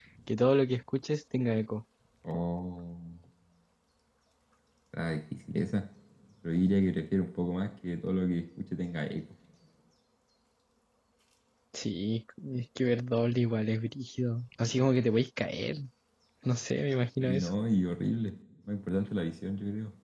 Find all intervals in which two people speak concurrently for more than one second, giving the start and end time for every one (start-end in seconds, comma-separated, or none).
none